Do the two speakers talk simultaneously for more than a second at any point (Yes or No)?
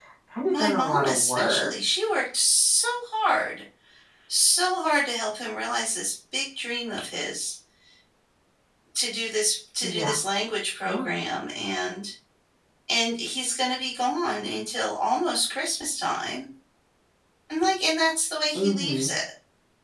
Yes